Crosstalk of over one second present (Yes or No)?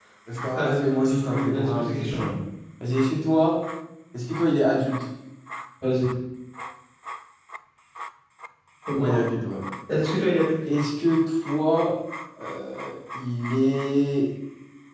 Yes